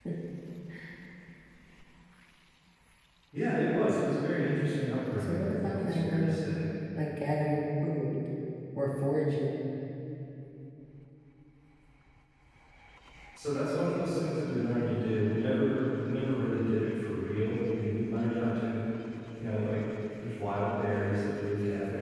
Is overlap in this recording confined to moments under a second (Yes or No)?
No